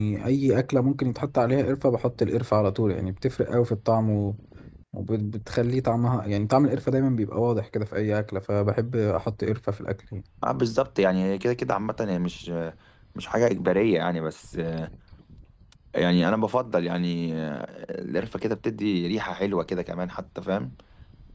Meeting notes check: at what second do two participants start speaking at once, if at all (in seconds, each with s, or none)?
none